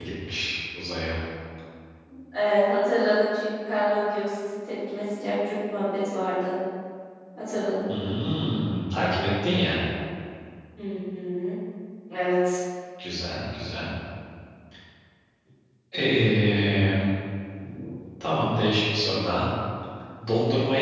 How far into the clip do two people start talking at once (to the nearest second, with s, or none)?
none